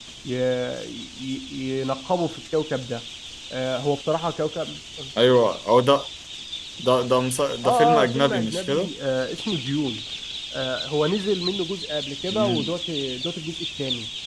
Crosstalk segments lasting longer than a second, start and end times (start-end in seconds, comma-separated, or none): 7.7-8.9